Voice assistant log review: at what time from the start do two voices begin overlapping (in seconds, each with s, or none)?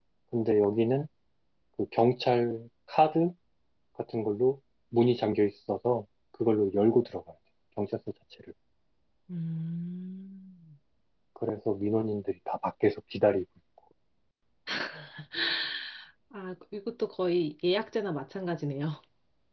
none